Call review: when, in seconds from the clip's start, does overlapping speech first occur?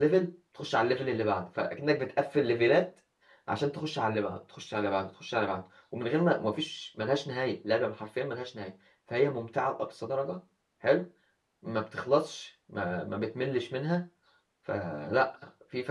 none

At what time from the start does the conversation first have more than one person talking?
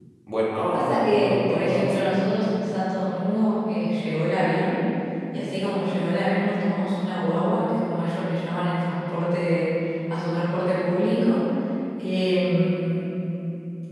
1 s

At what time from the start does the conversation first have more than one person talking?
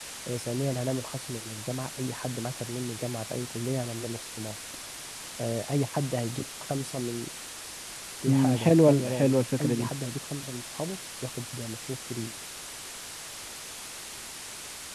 8 s

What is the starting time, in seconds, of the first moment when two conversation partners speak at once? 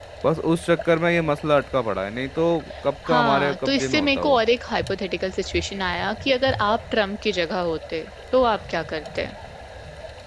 3 s

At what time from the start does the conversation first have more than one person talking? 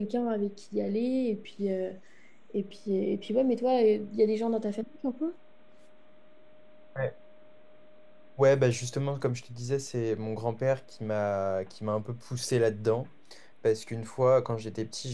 none

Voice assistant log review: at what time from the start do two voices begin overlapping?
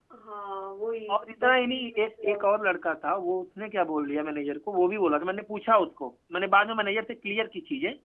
1 s

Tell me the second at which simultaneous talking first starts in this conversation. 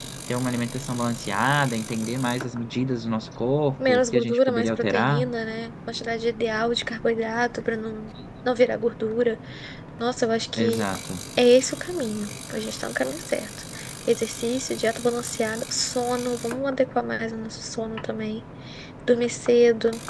4 s

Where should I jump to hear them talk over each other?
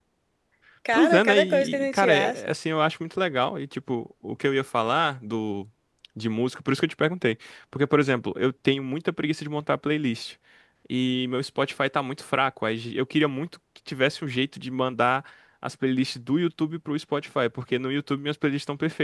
1 s

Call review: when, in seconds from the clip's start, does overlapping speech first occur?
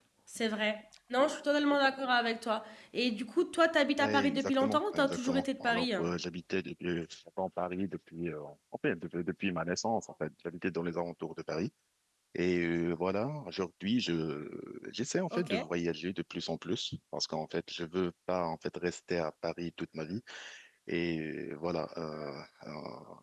4 s

